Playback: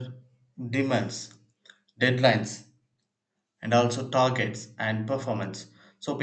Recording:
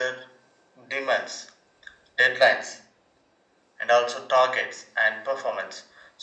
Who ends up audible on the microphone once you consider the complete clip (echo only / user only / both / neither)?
echo only